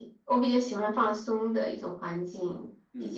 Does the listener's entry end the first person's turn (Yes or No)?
Yes